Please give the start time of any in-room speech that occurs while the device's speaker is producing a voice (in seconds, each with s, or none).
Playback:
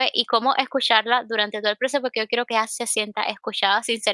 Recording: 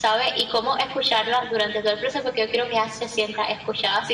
none